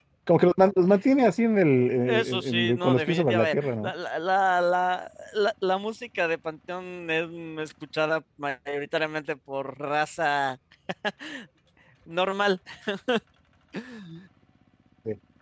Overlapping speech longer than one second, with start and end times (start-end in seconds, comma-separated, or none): 2.0-3.9